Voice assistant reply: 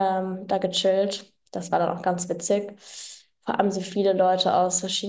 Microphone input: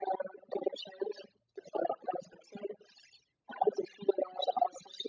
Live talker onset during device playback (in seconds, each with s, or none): none